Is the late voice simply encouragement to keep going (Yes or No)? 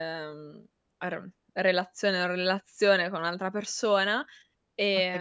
No